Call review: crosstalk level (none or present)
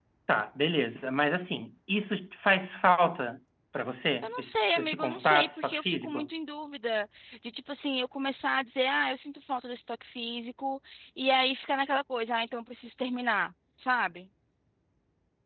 present